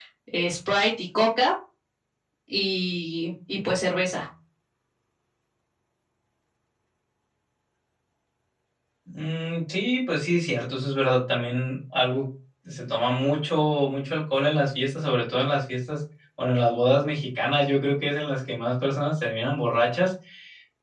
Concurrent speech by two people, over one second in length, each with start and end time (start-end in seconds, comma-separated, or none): none